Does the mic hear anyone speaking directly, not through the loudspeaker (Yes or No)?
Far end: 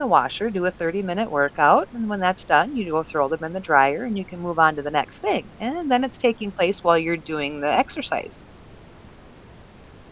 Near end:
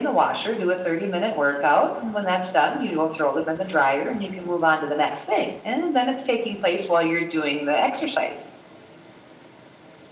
No